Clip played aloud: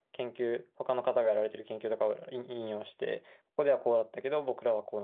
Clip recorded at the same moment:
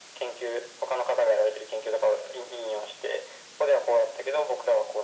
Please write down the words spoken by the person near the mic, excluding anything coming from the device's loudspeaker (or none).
none